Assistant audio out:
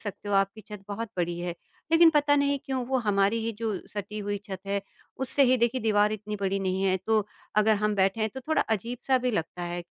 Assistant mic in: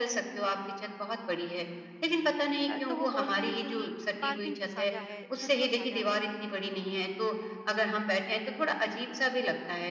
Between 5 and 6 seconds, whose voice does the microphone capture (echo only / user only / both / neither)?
both